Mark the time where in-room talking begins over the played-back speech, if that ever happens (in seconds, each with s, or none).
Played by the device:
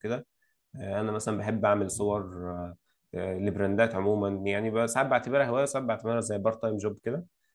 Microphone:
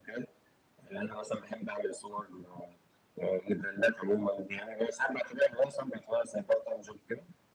none